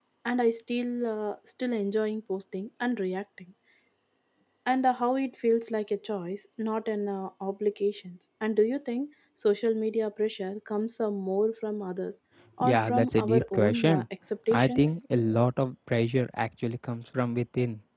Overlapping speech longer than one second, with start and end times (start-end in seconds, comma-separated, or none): 12.6-14.0